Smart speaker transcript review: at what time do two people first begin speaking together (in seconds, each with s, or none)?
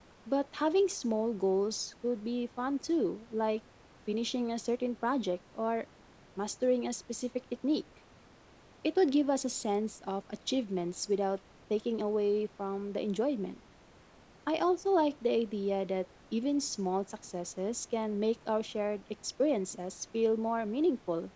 none